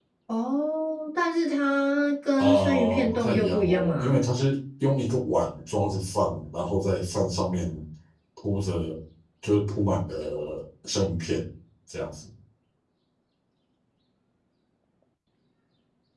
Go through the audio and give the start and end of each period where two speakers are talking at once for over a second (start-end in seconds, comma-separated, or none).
2.4-4.2